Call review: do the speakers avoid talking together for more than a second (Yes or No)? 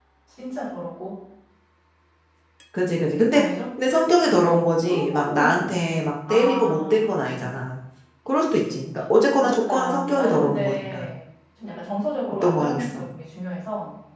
No